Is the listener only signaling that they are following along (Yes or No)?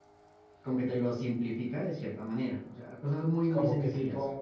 No